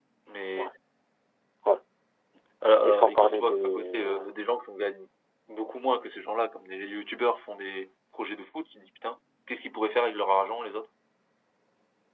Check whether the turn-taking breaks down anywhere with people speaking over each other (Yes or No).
Yes